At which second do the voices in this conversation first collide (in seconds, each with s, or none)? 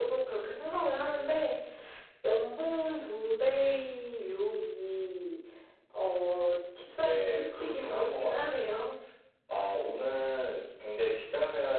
7.0 s